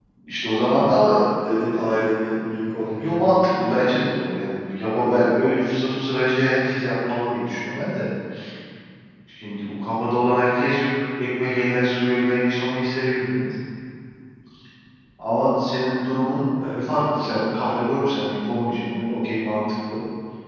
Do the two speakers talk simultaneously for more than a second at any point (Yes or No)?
No